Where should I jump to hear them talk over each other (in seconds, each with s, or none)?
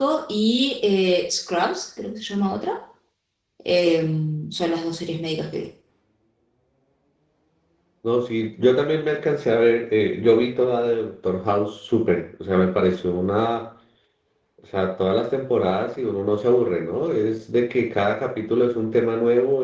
none